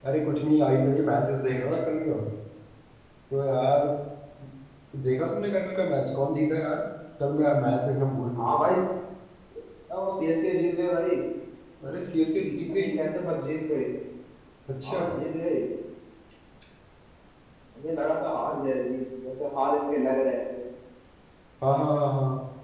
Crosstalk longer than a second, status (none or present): none